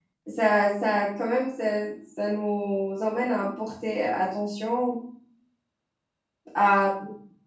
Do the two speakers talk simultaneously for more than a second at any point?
No

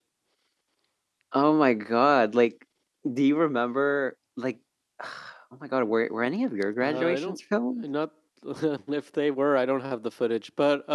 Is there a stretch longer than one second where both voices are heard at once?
No

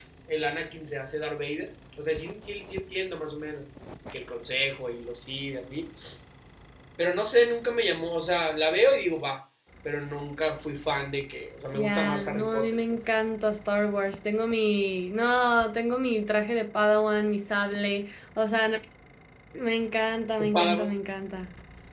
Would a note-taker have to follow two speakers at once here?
Yes, from 11.7 s

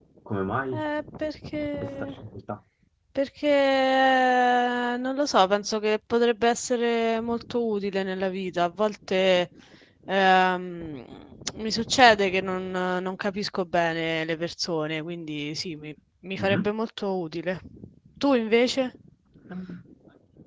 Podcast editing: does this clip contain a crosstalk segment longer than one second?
No

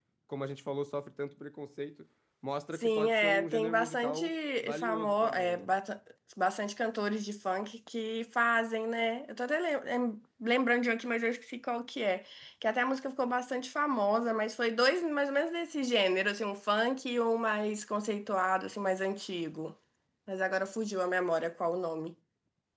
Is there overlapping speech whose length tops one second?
Yes, from 2.8 s

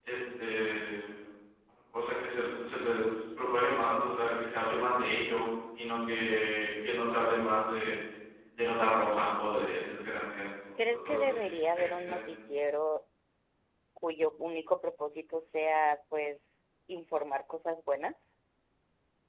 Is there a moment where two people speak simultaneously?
Yes, from 11.0 s

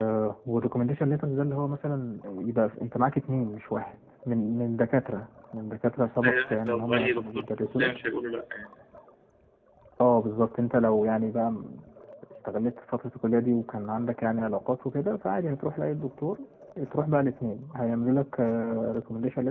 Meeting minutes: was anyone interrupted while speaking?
Yes, from 6.2 s

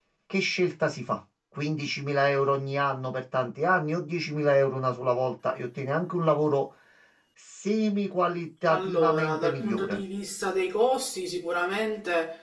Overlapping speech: Yes, from 8.7 s

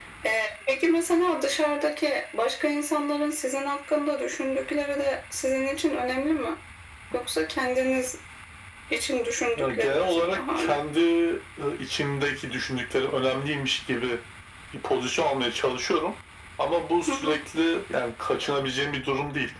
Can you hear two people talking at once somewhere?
Yes, from 9.6 s

